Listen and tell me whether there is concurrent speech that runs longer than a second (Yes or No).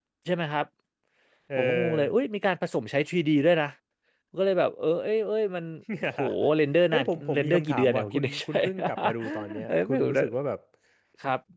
Yes